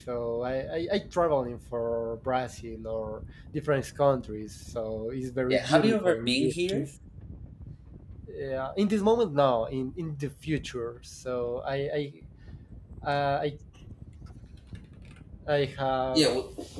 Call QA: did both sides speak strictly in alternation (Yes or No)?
No